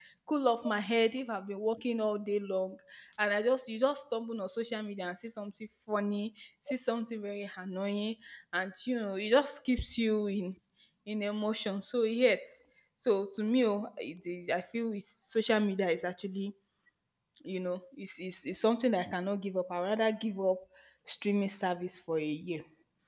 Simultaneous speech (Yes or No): No